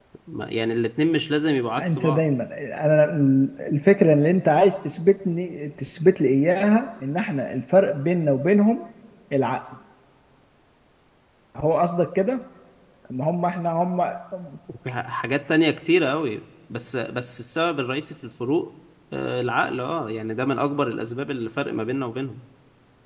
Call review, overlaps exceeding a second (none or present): none